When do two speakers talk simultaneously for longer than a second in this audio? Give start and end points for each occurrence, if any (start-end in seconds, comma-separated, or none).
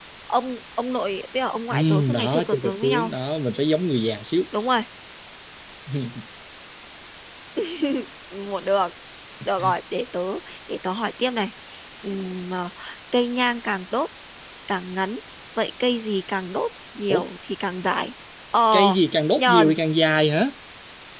1.7-3.1